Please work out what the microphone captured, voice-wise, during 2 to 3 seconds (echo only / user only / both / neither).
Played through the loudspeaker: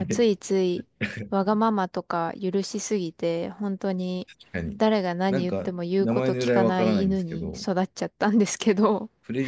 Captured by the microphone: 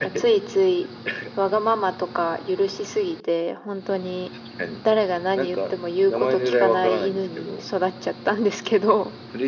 echo only